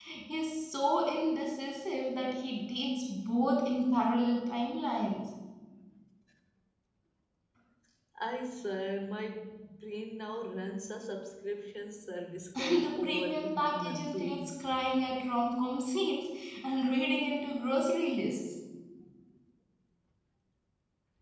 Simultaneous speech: Yes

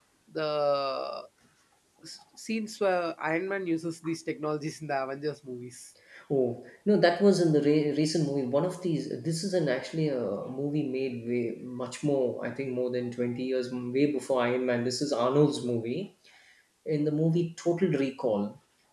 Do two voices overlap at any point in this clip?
No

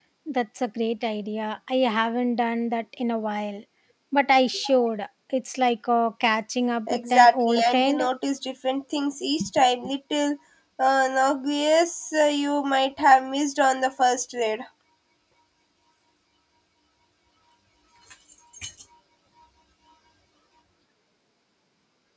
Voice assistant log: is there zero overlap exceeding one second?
No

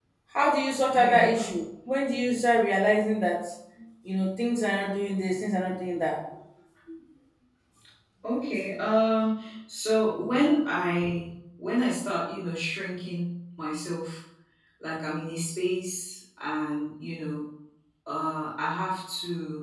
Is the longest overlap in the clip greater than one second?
No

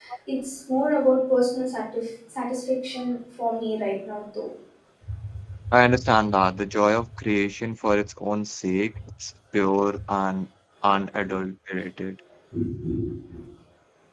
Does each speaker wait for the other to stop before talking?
Yes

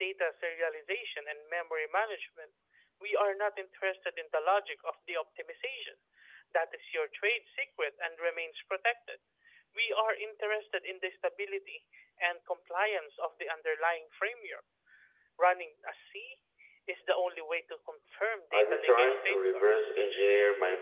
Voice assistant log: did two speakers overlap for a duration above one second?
Yes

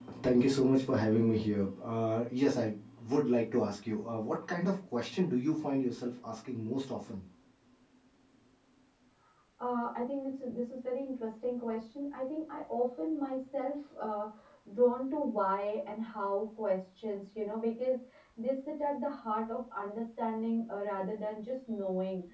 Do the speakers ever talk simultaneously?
No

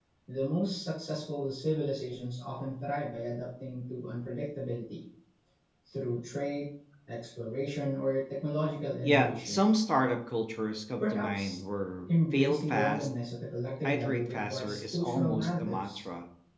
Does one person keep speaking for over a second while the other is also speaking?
Yes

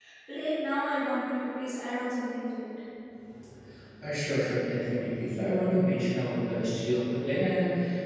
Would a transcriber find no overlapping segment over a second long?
Yes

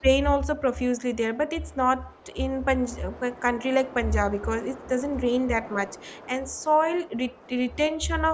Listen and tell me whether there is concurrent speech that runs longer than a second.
No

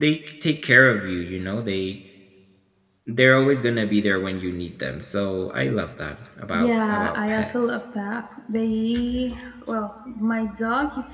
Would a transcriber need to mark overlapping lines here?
Yes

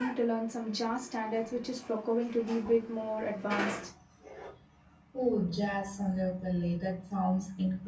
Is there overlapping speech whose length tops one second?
No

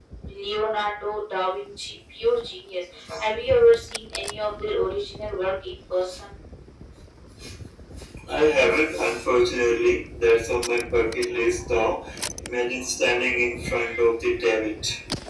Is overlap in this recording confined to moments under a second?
Yes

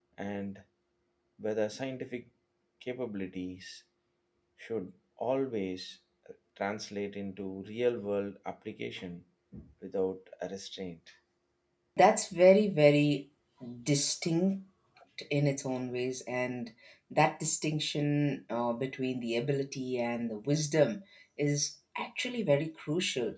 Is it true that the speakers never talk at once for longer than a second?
Yes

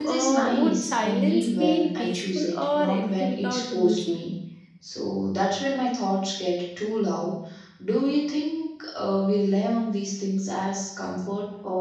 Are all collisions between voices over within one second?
No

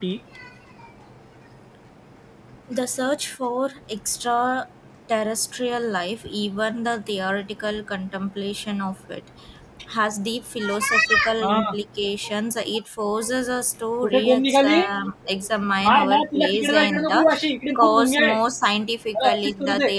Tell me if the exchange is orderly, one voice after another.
No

